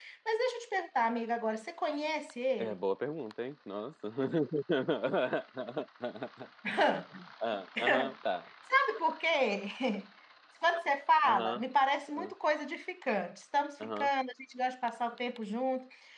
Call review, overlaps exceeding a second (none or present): none